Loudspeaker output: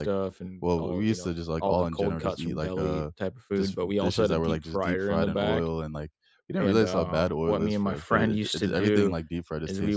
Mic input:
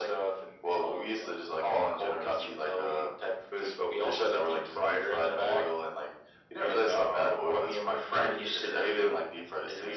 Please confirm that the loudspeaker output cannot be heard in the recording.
No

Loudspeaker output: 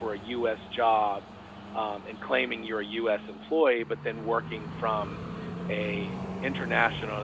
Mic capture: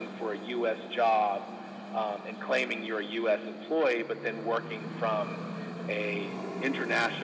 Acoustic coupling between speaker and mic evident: Yes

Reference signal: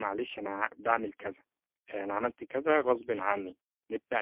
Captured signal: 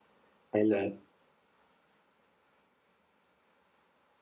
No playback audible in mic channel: Yes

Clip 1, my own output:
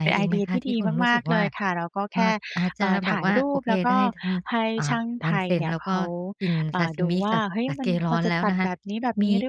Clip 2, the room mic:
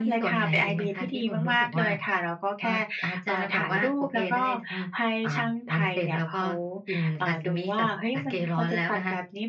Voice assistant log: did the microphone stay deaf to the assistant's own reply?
No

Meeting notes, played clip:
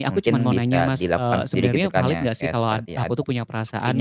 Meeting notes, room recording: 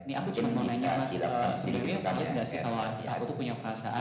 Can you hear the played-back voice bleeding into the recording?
Yes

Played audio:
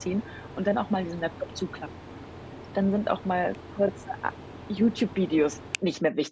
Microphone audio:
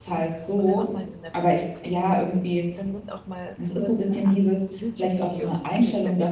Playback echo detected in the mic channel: Yes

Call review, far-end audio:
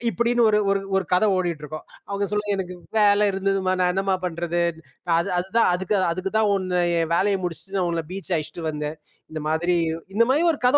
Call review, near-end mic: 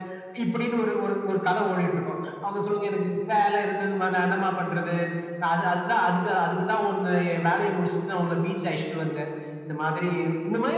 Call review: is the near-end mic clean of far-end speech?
No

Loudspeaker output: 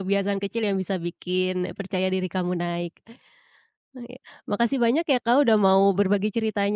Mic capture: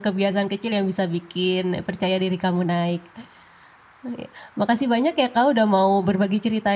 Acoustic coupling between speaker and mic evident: Yes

